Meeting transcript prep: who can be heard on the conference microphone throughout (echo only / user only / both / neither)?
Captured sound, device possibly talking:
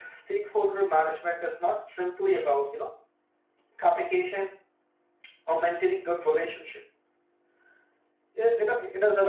echo only